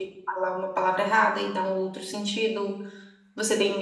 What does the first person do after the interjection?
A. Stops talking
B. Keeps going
B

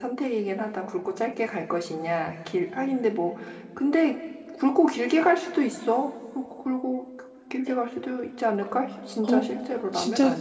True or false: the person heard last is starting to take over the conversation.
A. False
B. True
B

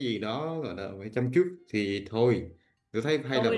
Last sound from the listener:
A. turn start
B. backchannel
B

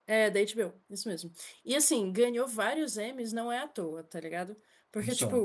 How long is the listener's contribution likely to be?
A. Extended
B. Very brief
B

